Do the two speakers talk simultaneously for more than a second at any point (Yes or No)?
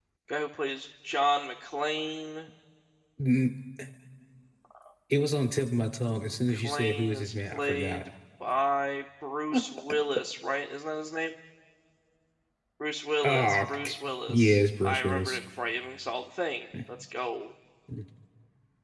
Yes